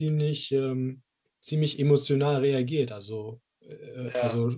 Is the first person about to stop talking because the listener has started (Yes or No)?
No